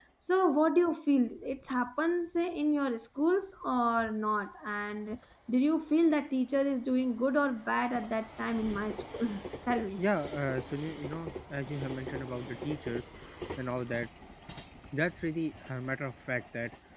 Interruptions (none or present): none